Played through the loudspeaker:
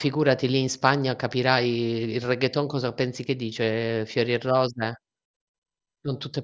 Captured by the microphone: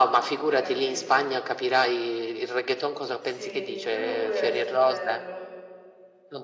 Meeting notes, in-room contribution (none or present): present